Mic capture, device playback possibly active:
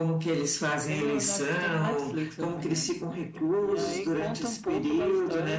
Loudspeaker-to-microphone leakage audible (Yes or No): Yes